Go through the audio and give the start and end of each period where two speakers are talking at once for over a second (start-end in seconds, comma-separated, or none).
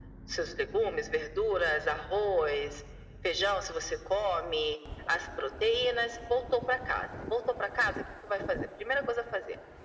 none